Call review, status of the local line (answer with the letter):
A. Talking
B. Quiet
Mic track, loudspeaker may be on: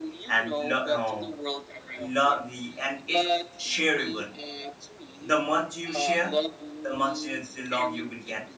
A